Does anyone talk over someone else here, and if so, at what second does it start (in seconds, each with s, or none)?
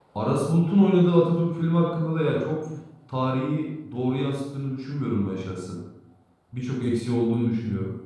none